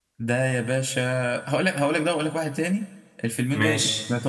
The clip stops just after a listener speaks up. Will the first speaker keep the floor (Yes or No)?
Yes